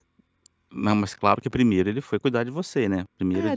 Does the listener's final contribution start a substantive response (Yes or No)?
Yes